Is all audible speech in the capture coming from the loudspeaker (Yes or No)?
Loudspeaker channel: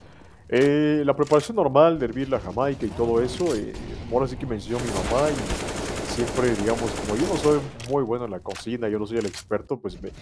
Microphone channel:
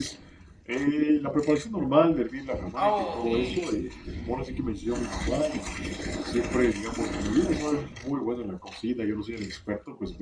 No